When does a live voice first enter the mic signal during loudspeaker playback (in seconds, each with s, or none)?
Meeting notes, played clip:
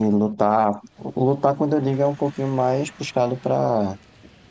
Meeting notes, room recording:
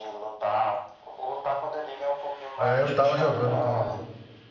2.6 s